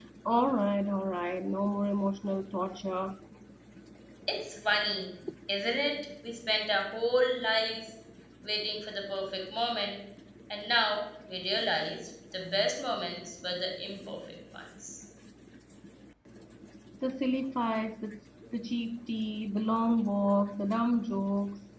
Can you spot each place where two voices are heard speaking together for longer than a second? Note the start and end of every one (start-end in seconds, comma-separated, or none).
none